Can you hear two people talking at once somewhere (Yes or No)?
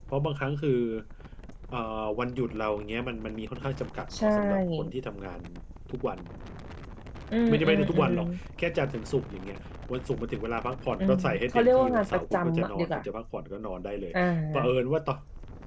Yes